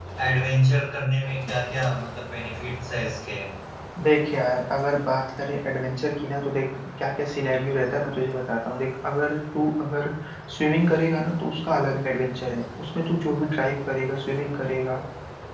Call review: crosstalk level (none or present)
none